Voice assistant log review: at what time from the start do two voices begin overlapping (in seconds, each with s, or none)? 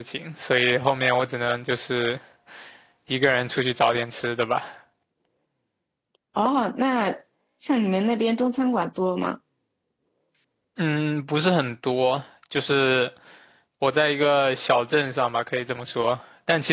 none